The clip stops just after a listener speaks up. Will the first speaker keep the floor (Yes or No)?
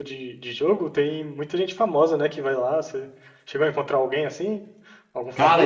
No